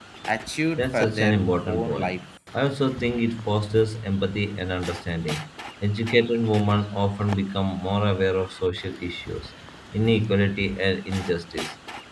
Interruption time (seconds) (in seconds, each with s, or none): 0.8 s